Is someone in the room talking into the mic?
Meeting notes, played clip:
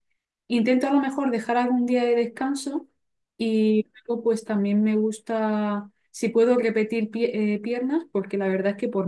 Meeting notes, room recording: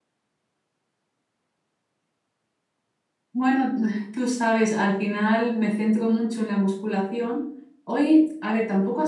Yes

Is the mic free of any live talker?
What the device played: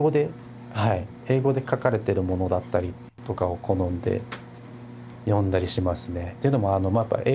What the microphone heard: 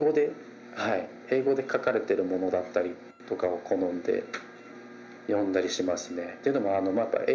Yes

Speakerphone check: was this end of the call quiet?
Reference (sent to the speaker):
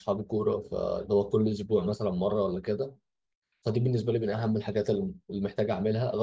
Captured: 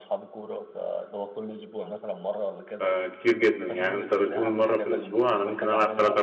No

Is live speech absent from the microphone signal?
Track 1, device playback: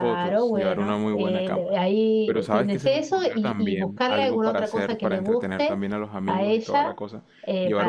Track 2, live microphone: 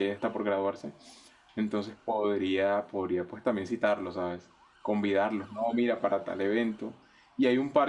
No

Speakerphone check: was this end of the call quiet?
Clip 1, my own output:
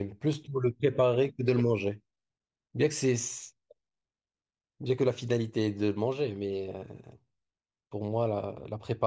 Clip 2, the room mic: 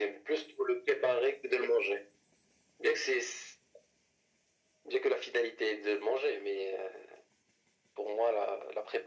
Yes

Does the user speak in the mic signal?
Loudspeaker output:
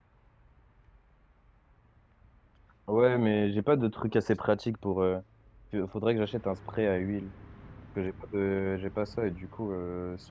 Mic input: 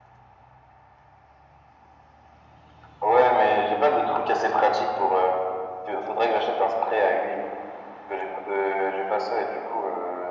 No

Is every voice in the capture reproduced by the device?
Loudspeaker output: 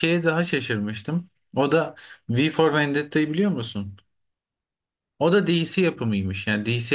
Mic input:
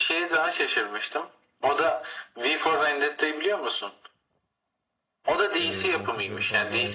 No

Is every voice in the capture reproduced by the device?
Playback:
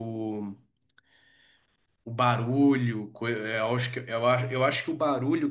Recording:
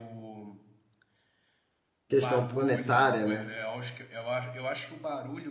No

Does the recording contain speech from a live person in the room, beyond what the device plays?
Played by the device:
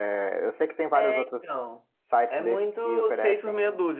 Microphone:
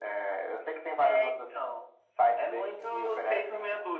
No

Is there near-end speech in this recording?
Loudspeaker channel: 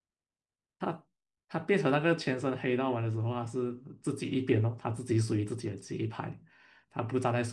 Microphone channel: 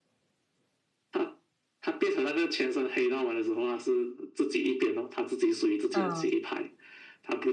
Yes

